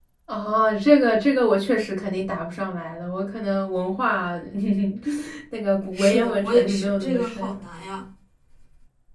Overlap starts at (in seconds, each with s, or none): 6.0 s